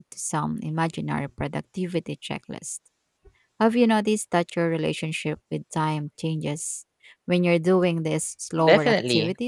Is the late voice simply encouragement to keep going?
No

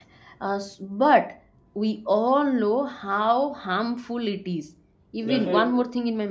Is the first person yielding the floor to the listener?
No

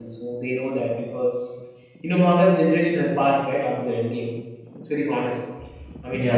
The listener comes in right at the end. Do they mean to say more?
No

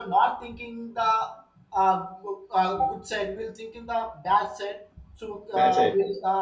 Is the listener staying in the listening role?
No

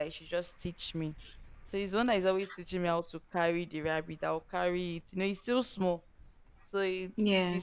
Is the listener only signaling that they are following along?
Yes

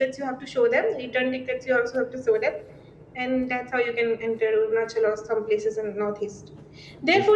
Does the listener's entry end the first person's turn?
No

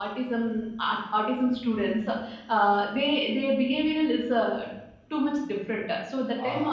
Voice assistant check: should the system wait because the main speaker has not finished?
Yes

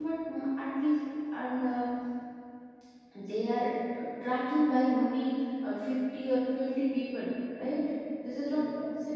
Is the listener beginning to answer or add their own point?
No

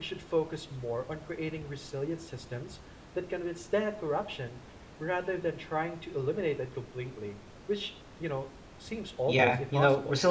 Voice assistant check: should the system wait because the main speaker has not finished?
No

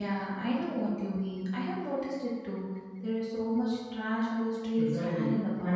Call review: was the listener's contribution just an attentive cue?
No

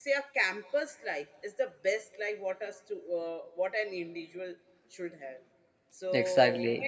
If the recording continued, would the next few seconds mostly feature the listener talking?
No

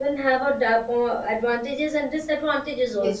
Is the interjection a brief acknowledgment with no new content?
No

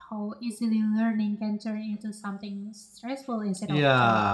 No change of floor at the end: No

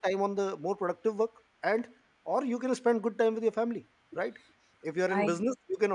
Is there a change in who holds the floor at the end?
No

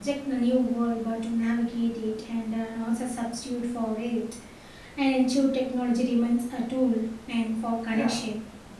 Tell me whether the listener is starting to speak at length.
Yes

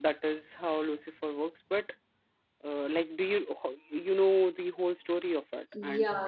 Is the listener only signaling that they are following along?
No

